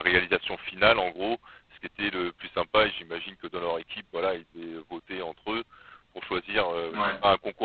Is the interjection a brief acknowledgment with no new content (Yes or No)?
Yes